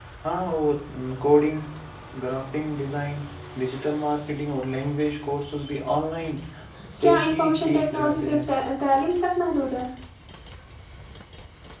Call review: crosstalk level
present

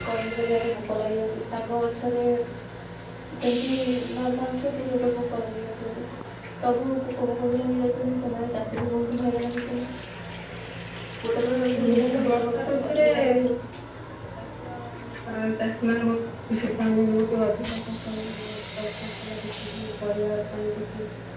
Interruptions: present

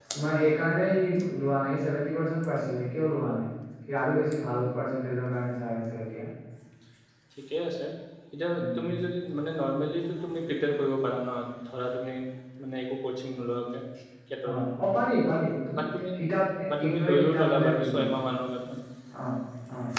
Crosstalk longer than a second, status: present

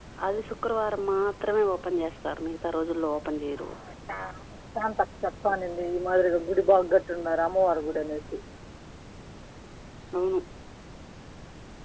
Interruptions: none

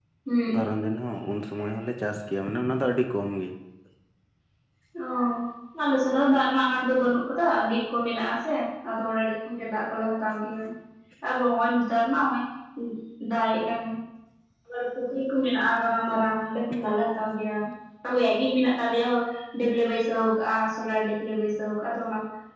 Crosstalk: none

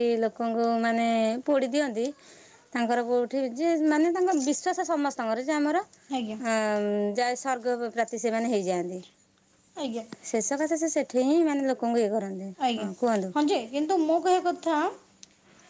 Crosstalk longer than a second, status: none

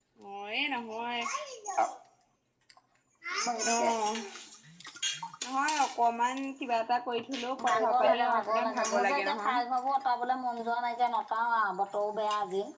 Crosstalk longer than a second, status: present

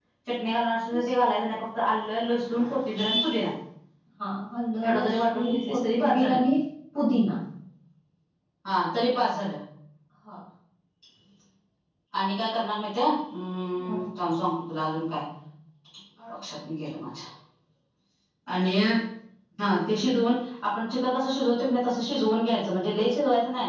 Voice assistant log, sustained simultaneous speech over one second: present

